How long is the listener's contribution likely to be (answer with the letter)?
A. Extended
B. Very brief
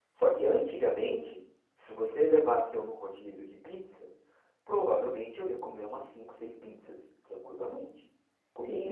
B